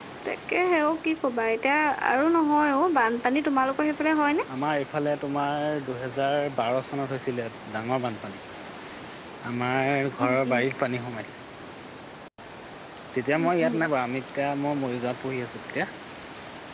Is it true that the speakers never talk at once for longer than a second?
Yes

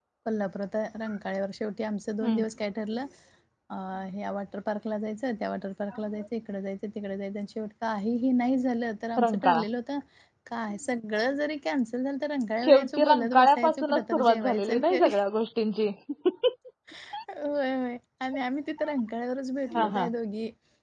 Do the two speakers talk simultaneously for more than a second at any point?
Yes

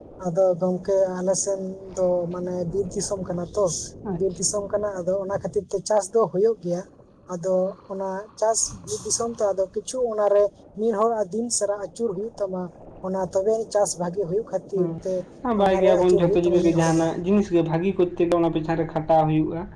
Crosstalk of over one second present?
Yes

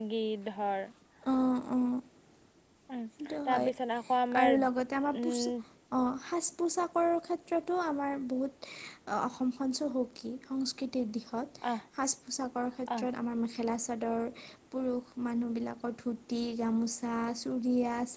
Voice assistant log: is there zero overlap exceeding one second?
Yes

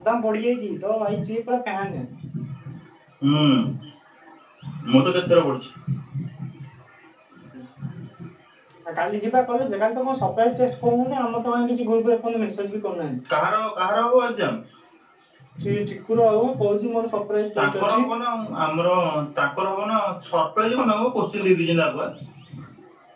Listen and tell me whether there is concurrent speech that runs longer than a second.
No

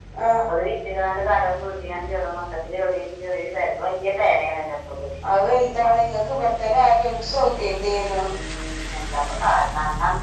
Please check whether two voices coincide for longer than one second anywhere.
No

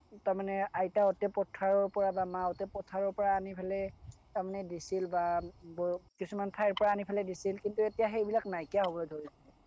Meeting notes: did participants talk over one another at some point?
No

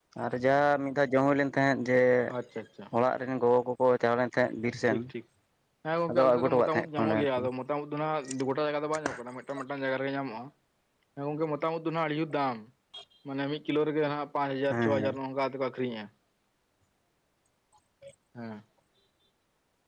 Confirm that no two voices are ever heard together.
No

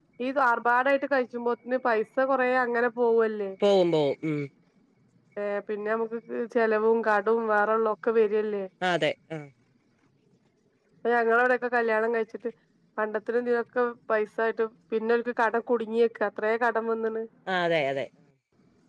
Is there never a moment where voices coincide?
Yes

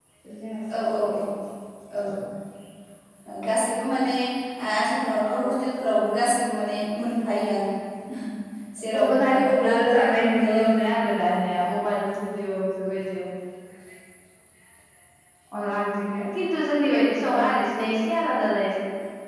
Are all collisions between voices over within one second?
No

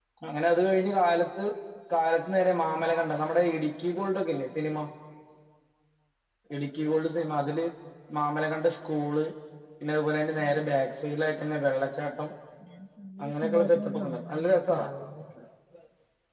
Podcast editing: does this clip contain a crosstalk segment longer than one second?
Yes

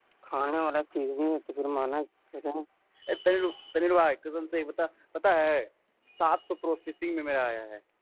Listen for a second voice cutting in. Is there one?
No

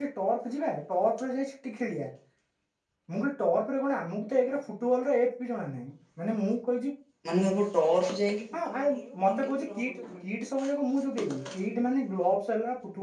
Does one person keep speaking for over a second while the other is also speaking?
Yes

